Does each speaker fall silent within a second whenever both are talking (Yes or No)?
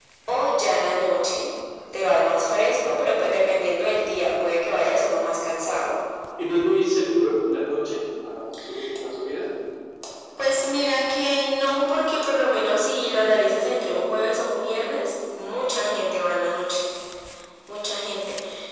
Yes